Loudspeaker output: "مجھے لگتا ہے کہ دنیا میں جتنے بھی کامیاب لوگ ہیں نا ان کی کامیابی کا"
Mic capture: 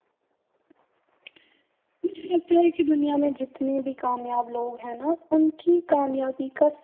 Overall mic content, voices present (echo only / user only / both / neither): echo only